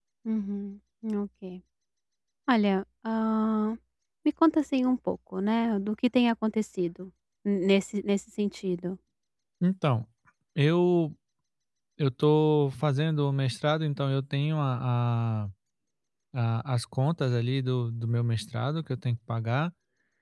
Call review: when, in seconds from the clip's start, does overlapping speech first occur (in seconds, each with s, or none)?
none